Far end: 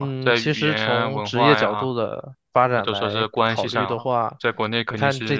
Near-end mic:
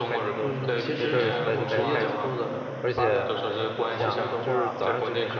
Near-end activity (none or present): present